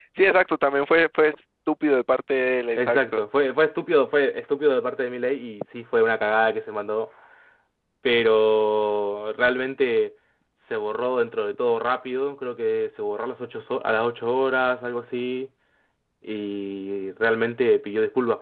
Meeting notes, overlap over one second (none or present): none